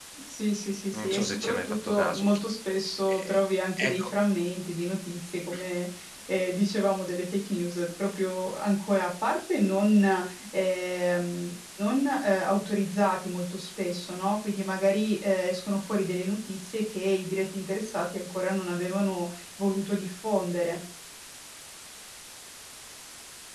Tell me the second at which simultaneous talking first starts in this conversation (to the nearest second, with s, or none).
1 s